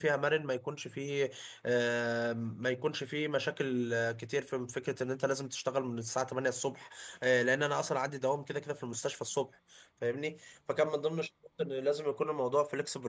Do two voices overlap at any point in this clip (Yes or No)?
No